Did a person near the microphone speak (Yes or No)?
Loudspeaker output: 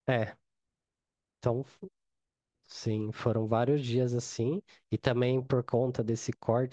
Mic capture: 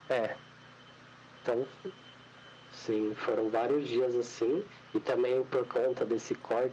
No